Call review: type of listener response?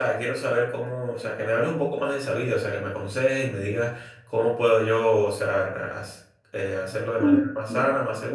listening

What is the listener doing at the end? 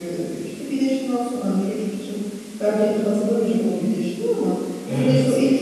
listening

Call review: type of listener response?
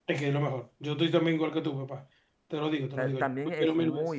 taking over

